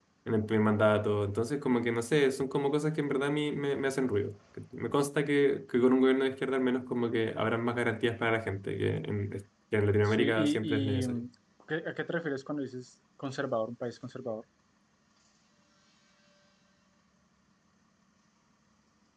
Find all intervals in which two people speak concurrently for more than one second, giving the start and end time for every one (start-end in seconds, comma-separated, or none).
10.0-11.2